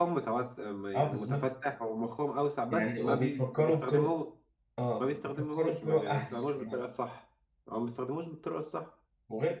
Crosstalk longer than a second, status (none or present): present